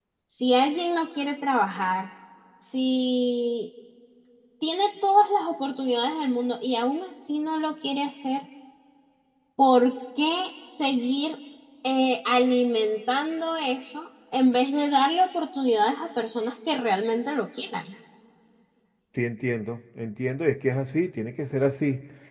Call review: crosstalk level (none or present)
none